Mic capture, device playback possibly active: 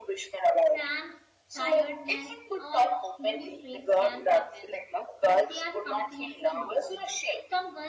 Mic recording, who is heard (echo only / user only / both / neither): both